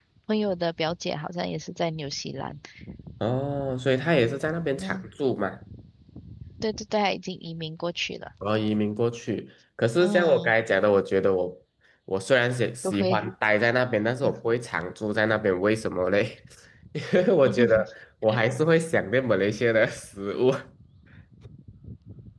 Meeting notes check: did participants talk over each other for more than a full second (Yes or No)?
No